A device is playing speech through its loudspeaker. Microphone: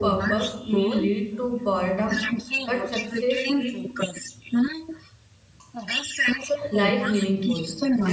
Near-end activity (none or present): present